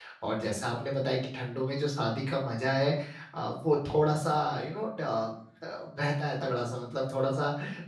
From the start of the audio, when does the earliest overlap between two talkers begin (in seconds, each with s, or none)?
none